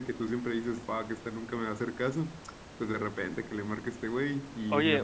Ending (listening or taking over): taking over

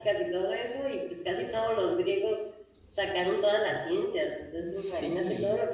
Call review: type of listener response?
listening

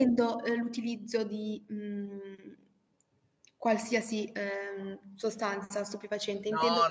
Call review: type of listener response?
taking over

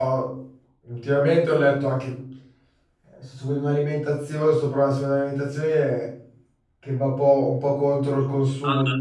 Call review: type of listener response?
taking over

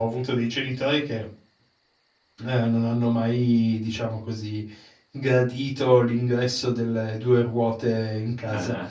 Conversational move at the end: listening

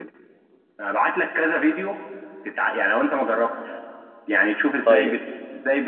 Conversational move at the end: listening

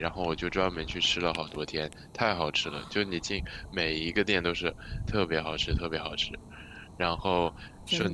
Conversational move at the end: listening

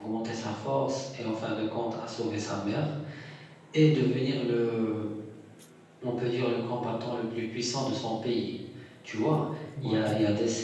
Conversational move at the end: listening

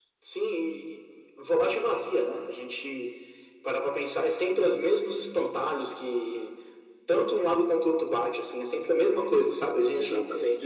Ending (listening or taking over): listening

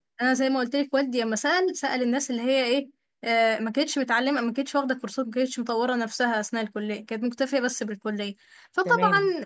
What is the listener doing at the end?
listening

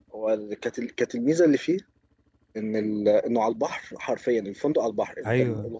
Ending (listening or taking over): listening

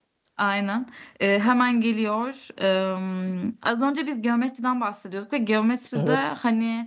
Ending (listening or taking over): listening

